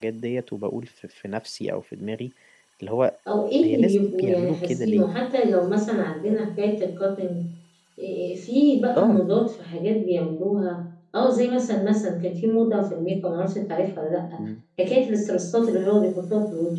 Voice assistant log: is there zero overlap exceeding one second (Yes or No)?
No